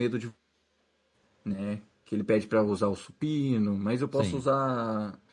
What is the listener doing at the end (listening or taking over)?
listening